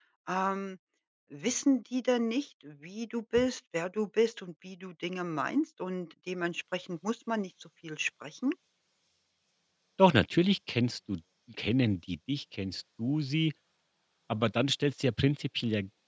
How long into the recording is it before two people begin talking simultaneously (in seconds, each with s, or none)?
none